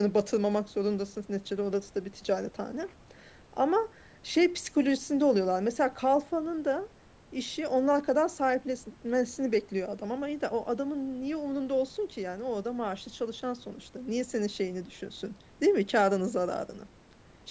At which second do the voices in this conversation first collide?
none

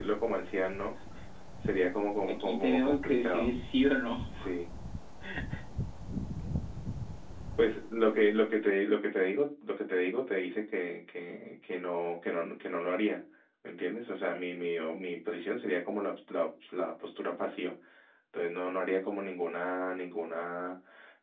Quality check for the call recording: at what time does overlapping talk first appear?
2.3 s

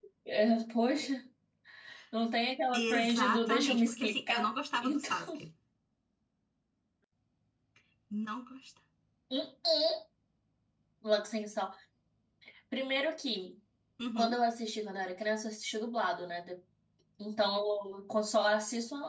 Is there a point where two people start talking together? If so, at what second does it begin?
2.7 s

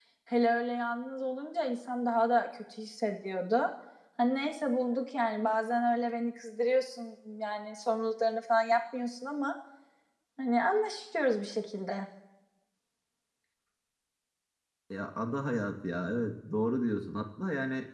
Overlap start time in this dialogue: none

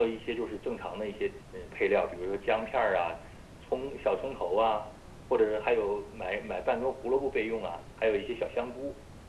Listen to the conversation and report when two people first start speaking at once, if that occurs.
none

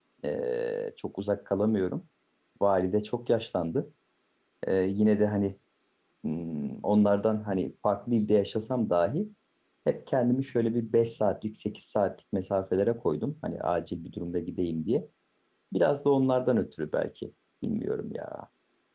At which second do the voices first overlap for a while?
none

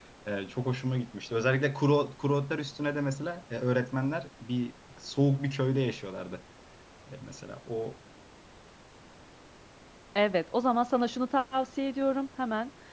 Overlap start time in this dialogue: none

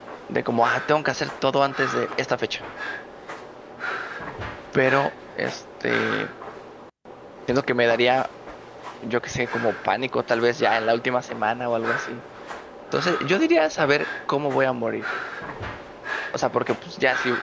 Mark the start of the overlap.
none

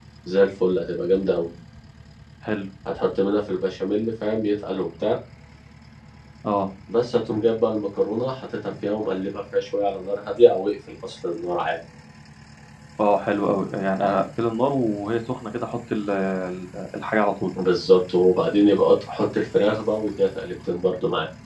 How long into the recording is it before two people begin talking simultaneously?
none

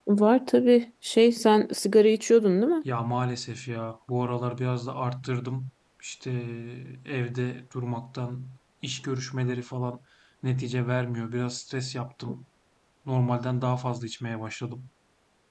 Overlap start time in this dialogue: none

